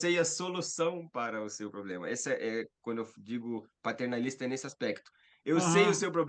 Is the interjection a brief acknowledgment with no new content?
Yes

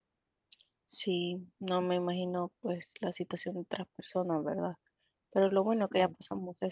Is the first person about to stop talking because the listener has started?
No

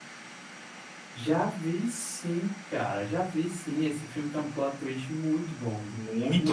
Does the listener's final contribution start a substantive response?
Yes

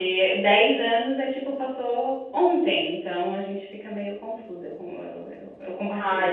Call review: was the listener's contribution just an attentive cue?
No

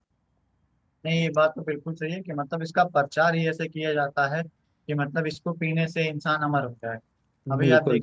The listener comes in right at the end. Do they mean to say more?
No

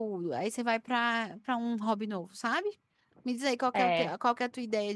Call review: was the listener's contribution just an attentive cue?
Yes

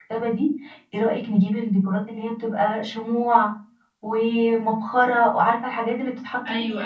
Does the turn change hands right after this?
Yes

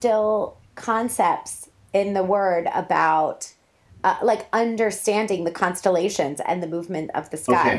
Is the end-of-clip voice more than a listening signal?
Yes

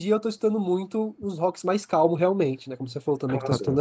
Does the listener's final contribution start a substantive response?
Yes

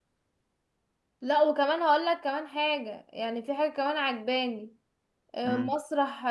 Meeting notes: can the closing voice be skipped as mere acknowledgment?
Yes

